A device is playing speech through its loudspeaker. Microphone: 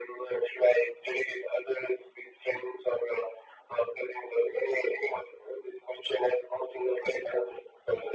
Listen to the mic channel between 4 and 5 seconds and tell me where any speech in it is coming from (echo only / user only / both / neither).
echo only